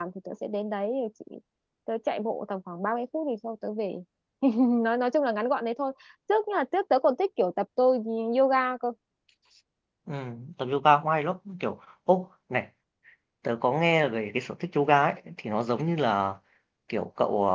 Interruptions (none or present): none